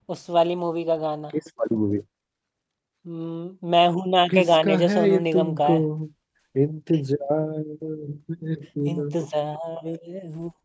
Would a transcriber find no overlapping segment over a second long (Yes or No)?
No